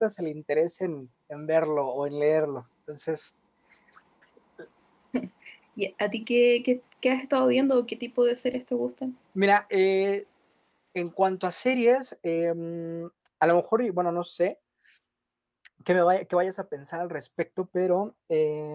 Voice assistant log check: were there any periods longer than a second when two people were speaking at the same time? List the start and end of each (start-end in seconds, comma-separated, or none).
none